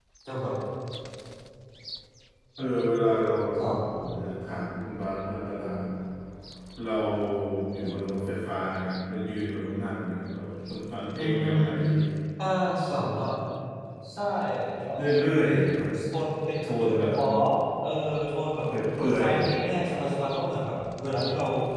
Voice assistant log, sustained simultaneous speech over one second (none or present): none